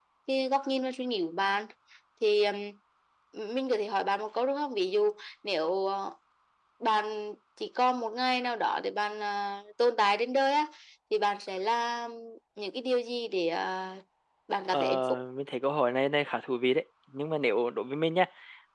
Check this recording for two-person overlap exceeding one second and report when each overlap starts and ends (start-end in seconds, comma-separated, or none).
none